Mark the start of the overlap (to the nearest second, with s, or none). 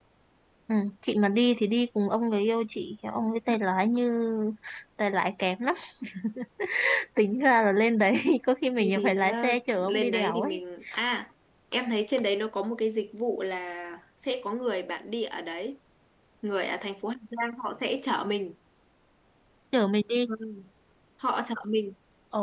9 s